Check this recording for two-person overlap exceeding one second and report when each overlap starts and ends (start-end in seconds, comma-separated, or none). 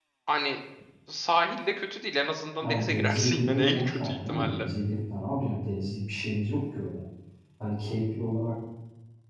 2.6-4.7